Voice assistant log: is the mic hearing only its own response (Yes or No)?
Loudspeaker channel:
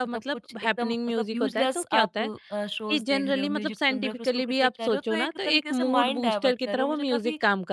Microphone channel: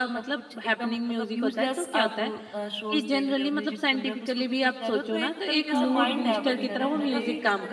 No